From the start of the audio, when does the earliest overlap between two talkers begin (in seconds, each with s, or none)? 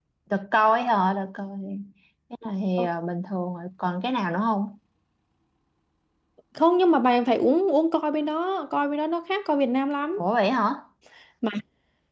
none